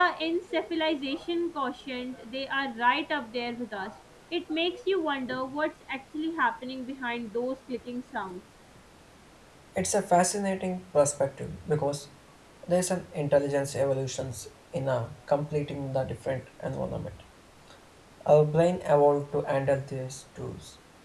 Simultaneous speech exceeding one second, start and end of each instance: none

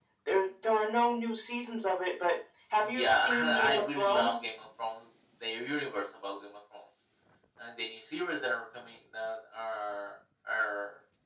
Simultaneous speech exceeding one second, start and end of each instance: 2.8-4.4

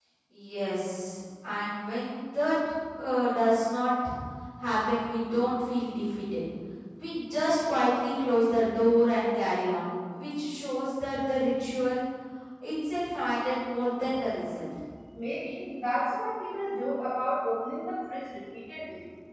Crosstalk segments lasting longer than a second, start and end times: none

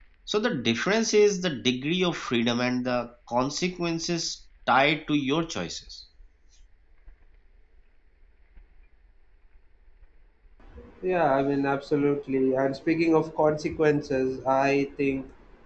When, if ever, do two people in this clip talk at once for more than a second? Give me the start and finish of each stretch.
none

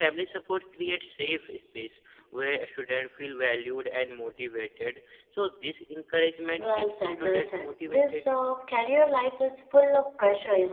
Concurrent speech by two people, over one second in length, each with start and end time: 6.6-8.2

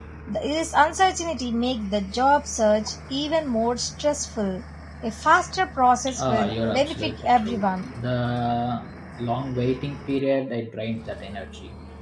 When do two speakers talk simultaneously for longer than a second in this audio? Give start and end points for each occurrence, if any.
6.2-7.7

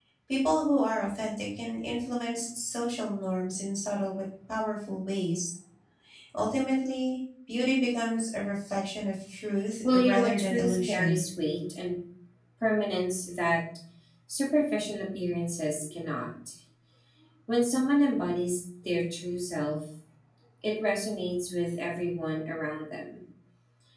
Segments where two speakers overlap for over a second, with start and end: 9.9-11.2

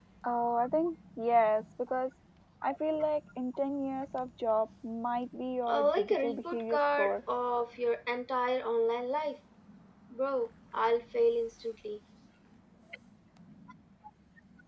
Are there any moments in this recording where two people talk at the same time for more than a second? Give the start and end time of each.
5.7-7.2

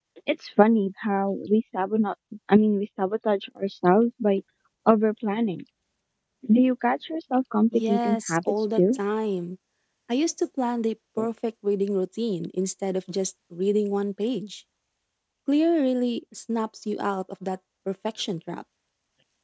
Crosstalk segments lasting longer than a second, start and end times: 7.7-8.9

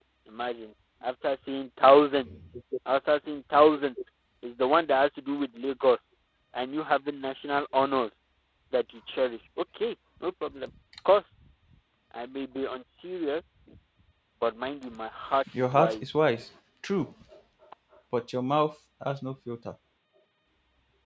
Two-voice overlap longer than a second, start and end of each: none

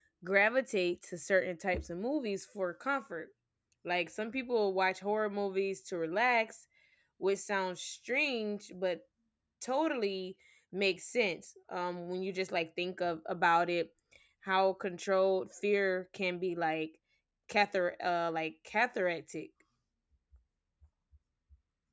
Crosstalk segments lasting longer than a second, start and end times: none

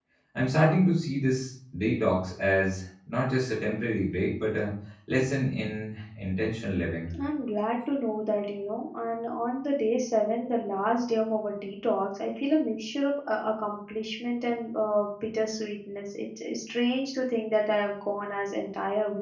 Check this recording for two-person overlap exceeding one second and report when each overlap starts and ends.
none

